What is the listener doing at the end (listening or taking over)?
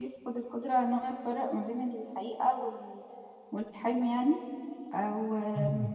listening